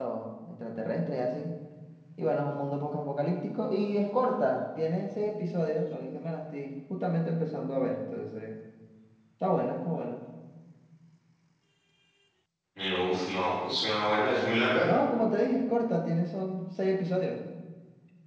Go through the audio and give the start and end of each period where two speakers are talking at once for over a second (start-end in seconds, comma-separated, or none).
none